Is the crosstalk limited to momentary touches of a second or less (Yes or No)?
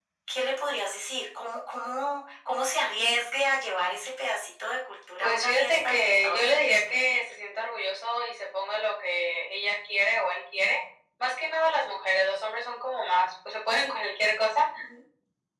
No